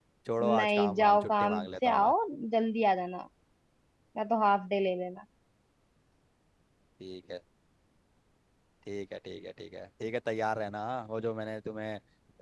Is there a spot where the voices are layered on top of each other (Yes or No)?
Yes